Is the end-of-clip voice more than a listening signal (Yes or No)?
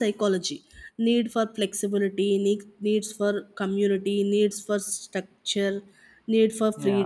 Yes